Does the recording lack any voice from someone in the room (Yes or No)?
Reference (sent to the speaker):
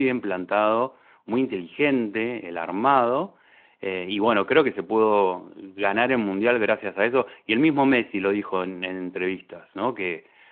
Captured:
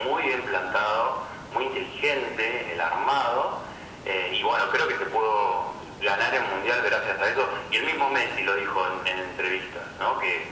Yes